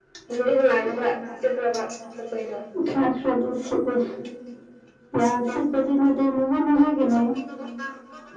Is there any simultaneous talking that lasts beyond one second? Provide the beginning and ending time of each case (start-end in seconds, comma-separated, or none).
none